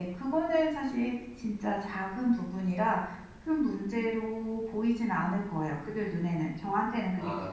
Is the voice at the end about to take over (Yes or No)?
Yes